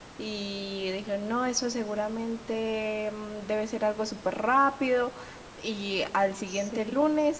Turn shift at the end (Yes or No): No